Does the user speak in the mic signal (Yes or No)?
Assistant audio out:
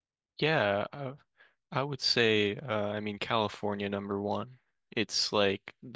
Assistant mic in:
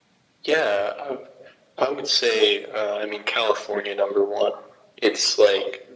No